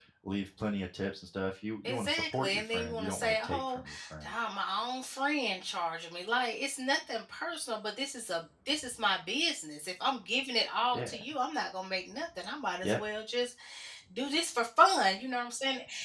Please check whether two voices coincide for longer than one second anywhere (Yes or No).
Yes